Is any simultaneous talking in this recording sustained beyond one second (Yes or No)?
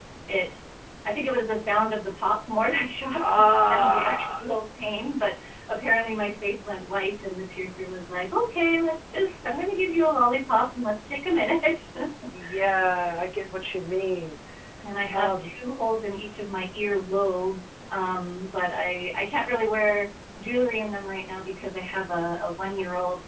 Yes